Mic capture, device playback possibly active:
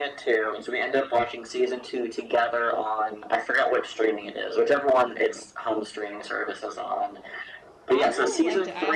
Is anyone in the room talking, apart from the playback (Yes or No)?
Yes